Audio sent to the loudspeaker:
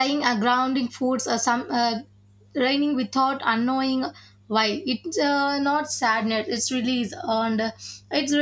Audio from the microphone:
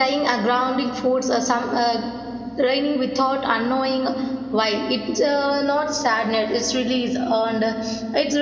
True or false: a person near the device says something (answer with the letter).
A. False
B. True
A